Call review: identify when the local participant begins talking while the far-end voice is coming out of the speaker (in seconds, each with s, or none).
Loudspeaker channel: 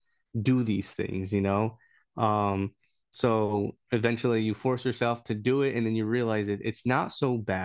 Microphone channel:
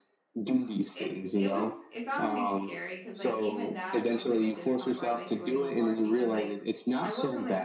0.9 s